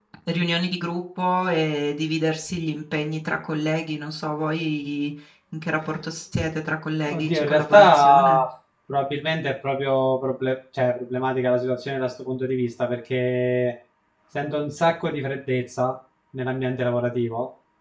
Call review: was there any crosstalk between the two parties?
Yes, from 7.1 s

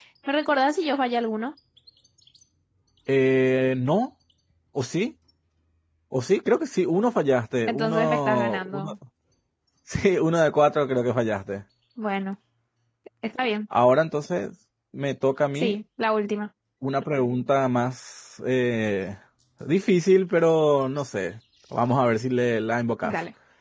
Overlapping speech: Yes, from 7.7 s

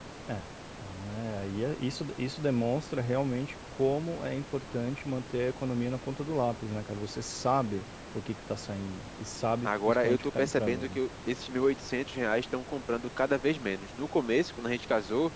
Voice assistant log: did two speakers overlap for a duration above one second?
Yes, from 9.6 s

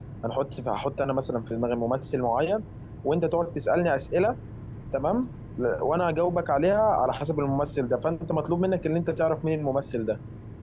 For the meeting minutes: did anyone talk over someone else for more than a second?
No

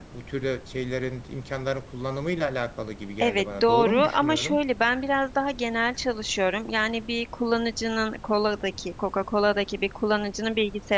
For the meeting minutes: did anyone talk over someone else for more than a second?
Yes, from 3.2 s

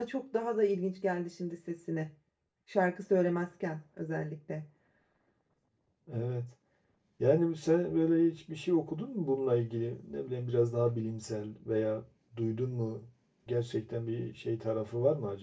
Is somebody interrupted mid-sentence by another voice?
No

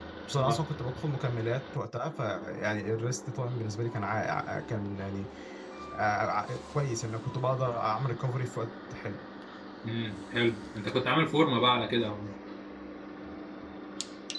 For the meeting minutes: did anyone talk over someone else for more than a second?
No

